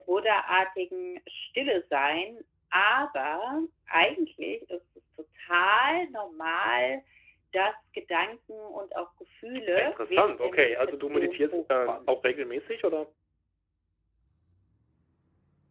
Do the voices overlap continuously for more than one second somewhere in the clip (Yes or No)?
Yes